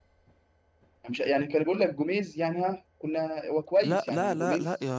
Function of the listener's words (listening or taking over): taking over